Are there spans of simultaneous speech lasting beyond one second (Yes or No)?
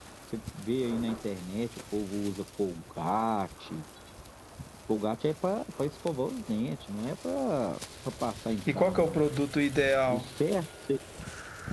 No